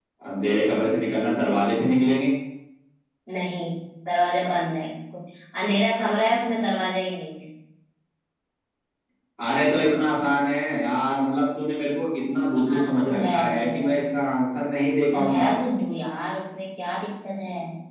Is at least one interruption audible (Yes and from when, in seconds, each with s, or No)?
Yes, from 12.7 s